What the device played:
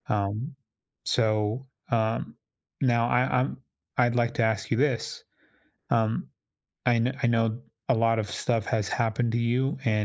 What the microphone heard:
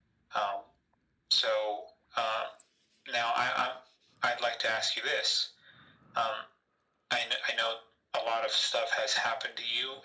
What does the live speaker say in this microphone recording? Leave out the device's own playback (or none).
none